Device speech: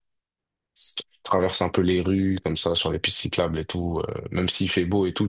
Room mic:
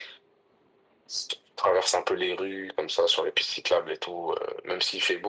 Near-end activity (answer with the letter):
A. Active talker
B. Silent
B